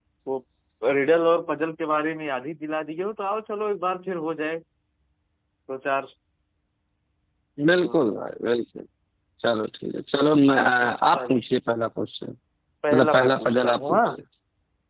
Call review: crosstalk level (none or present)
present